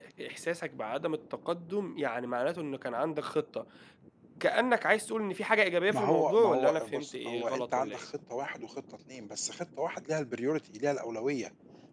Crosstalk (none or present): present